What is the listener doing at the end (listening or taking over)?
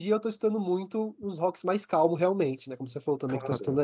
taking over